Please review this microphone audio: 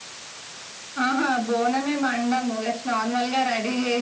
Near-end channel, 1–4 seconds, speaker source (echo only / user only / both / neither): echo only